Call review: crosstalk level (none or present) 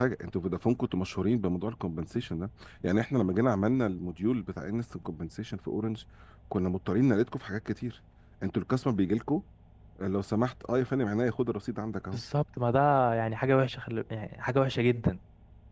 none